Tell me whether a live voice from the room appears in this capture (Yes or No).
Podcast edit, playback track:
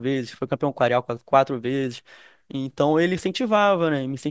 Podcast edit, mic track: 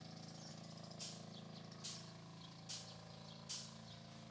No